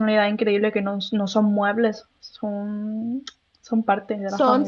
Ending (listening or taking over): taking over